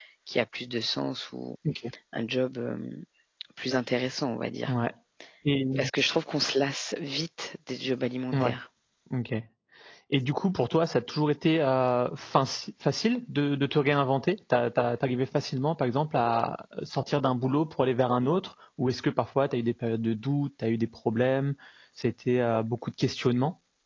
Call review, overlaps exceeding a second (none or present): none